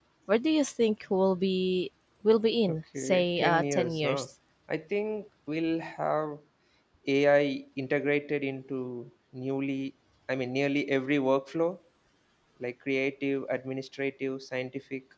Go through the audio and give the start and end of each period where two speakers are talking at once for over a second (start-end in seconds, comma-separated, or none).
2.7-4.2